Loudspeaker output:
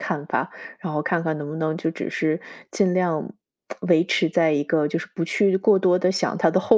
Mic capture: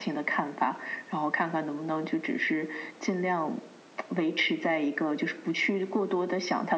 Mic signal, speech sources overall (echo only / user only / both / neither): echo only